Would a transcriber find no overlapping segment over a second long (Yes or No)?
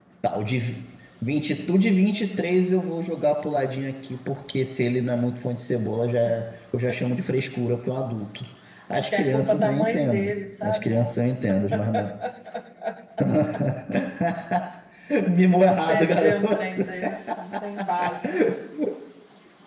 No